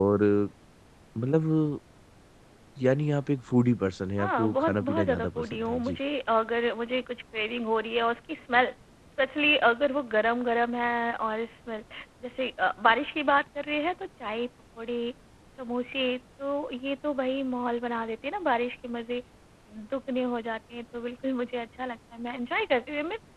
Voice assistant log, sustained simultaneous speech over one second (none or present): present